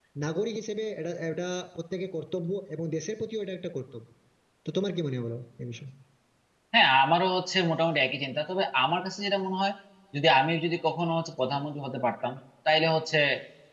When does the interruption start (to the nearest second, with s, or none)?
none